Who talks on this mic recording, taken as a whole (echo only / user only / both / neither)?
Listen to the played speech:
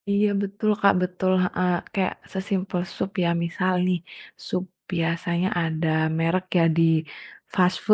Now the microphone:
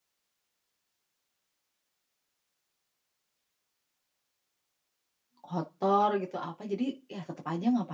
user only